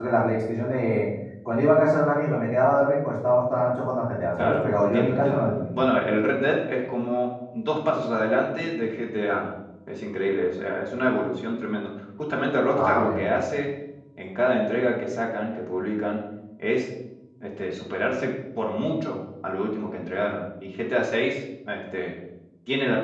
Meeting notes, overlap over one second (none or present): present